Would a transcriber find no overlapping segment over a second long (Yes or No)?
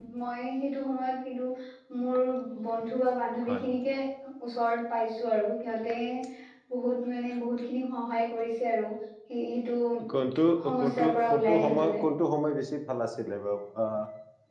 No